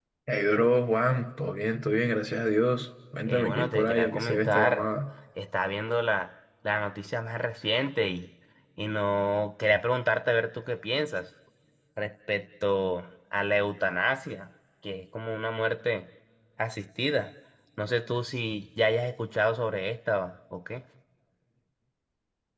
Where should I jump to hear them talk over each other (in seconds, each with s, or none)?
3.3 s